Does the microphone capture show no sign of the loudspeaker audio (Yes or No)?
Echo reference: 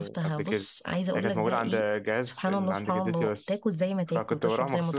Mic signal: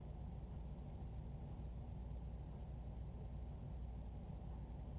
Yes